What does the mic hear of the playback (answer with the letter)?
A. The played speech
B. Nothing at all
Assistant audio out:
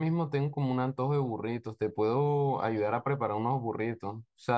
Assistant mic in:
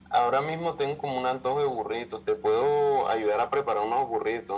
A